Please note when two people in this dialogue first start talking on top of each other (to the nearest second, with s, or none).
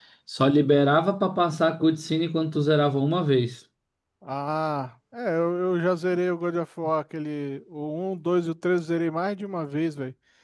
none